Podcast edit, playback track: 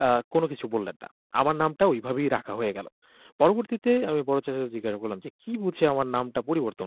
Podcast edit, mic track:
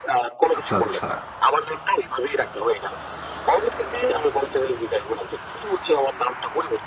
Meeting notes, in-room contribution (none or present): present